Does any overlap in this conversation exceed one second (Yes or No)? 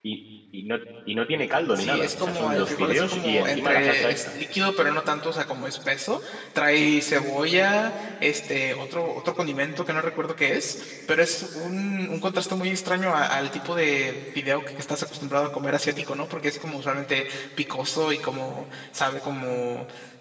Yes